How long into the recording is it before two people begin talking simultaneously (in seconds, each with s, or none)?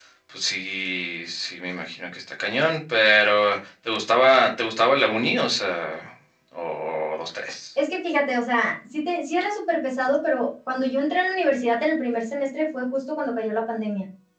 none